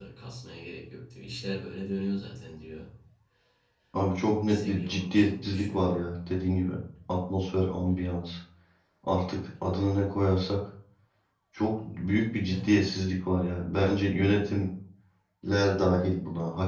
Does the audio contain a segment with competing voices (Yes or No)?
Yes